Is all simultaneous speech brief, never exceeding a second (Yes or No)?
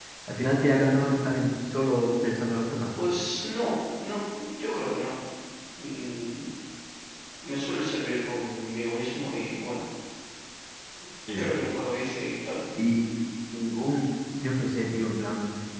Yes